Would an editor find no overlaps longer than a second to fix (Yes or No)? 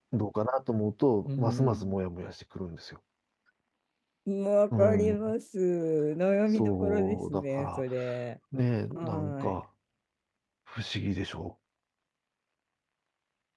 No